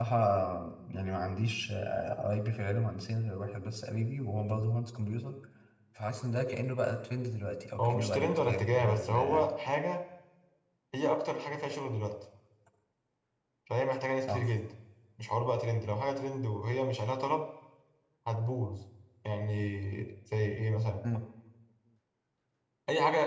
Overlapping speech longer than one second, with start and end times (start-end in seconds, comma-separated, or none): 7.8-9.5